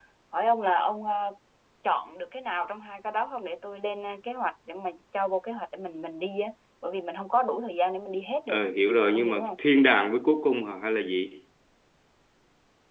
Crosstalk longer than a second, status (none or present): none